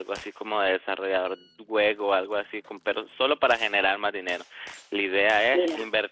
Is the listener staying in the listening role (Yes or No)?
Yes